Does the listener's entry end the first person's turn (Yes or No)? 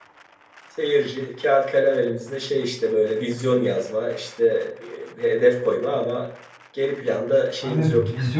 Yes